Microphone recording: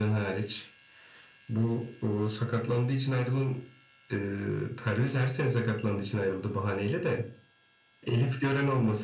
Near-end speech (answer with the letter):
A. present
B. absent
B